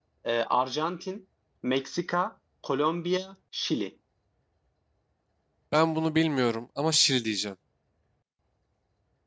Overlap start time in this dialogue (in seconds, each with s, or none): none